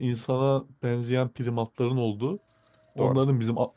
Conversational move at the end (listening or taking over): listening